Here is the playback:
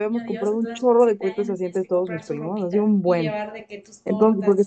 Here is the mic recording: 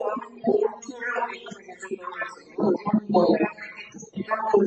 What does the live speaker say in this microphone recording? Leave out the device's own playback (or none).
none